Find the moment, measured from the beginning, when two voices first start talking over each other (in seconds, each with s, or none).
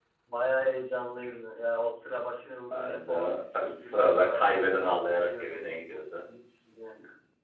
2.7 s